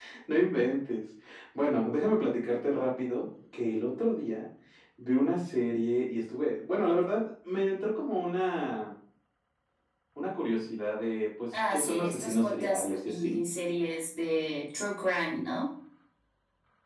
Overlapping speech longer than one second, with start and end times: 11.5-13.4

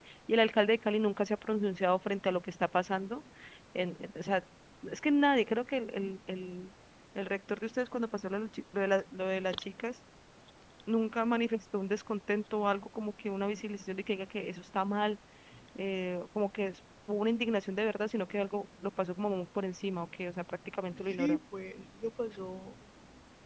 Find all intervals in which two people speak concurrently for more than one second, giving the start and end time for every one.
none

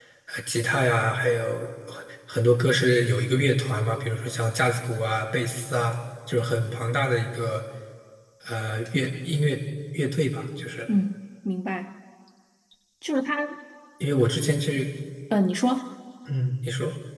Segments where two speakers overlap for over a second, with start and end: none

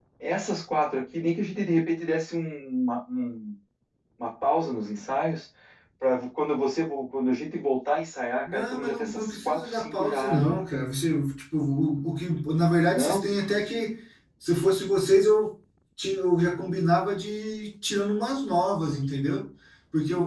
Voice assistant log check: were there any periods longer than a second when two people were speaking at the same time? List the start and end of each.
8.5-10.4

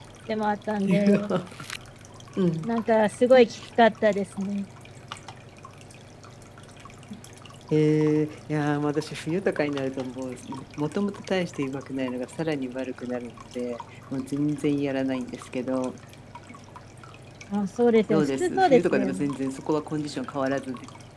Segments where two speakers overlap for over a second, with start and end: 18.1-19.3

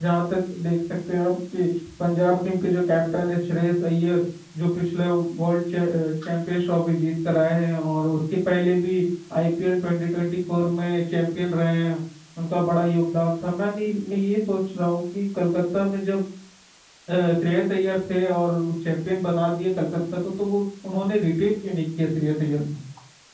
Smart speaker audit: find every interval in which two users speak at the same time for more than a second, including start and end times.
none

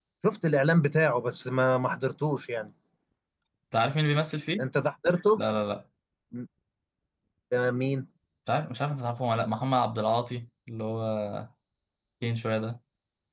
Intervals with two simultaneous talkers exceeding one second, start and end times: none

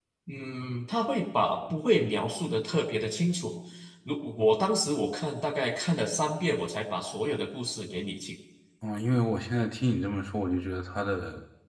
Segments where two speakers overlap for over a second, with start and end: none

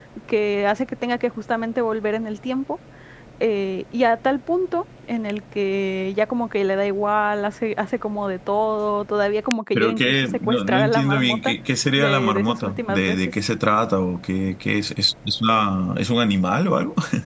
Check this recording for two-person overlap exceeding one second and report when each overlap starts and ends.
9.7-11.5, 11.9-13.3

